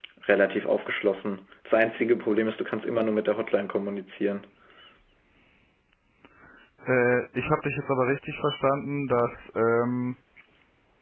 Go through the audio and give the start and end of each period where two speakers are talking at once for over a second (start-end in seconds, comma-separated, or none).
none